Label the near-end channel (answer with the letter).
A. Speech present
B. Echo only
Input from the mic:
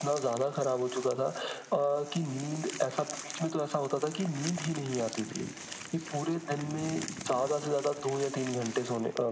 B